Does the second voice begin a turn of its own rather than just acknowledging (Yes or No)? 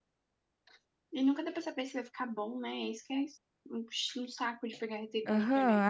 Yes